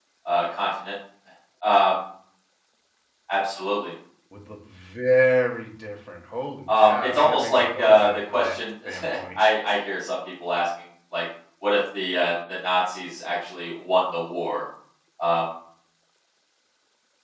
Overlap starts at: 7 s

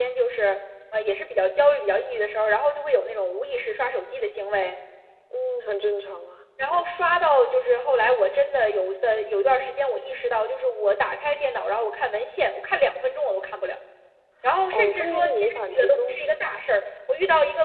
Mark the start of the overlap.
15 s

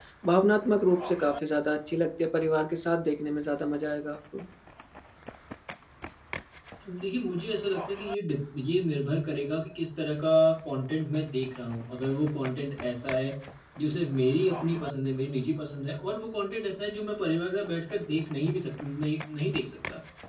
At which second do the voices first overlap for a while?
none

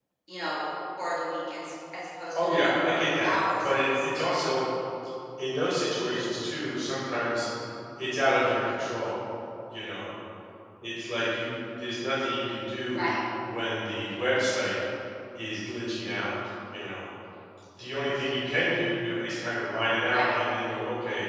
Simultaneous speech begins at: 2 s

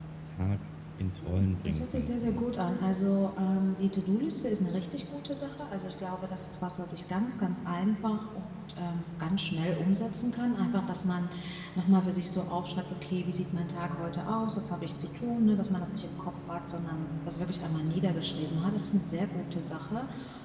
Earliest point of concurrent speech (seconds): 1 s

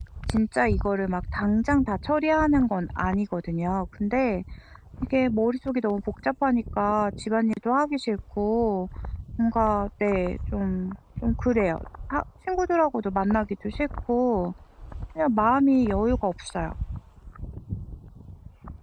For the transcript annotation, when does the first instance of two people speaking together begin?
none

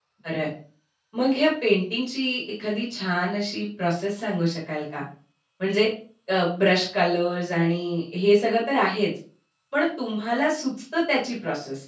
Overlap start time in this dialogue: none

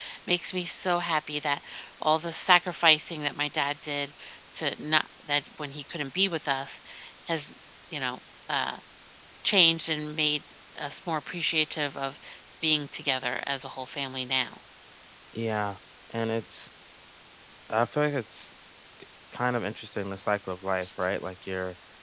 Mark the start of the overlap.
none

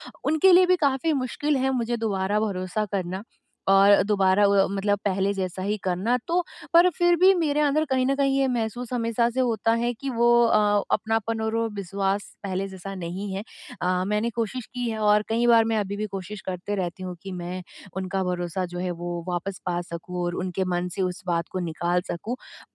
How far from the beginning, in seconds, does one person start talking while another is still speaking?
none

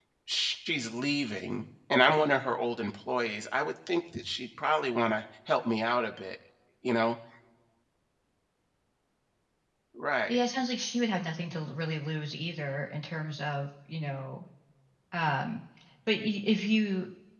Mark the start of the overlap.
none

